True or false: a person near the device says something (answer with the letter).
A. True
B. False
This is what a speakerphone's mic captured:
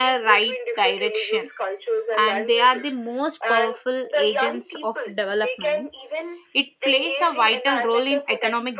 A